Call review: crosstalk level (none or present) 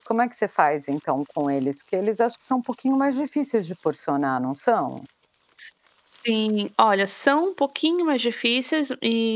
none